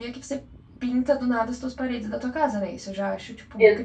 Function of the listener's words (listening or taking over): taking over